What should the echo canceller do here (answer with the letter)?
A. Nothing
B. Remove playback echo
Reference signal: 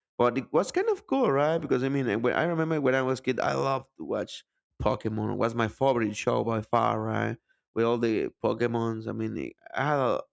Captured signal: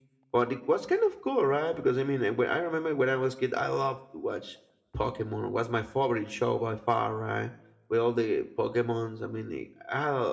B